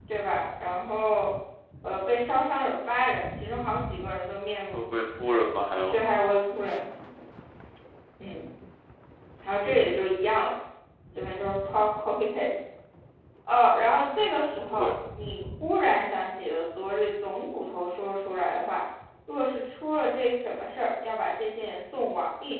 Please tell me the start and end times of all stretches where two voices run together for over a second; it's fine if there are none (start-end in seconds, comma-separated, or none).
4.7-6.0